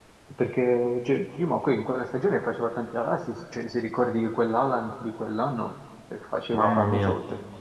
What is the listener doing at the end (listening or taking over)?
listening